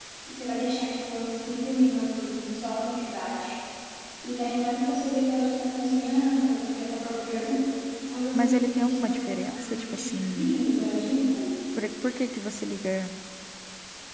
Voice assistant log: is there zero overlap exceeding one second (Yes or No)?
No